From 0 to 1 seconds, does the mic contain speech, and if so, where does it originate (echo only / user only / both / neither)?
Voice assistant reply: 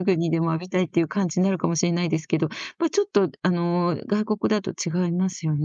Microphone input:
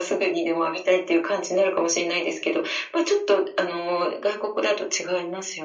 echo only